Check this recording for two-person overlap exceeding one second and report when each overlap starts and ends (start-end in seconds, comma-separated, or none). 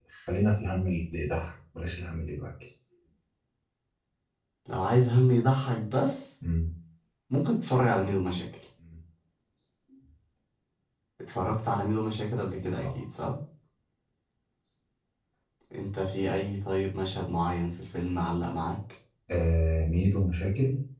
none